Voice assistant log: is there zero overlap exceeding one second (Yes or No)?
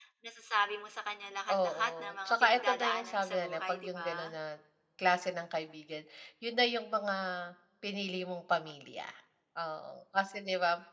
No